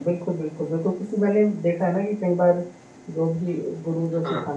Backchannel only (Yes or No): Yes